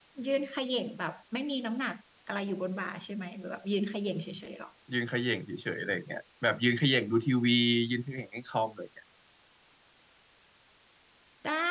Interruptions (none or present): none